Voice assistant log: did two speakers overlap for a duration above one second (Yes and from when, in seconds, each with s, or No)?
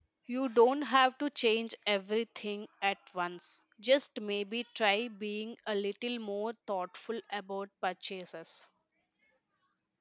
No